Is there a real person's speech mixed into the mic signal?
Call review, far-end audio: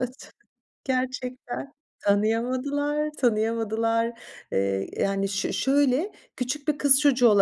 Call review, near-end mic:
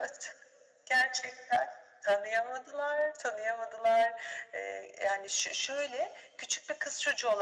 No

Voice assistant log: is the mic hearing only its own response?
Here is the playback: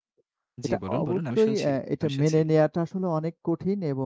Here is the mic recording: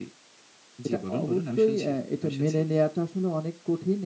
Yes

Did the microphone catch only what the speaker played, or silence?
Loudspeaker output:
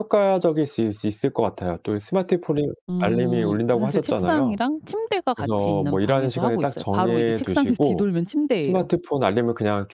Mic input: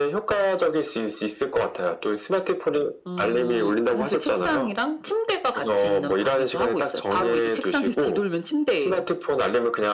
Yes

